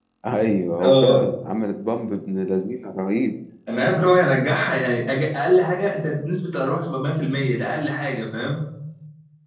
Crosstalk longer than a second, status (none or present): none